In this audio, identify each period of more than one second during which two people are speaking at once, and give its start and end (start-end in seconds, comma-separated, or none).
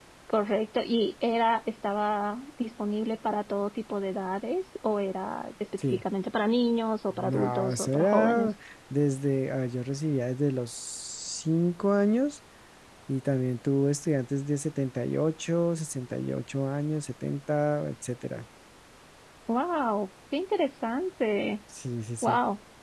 7.2-8.5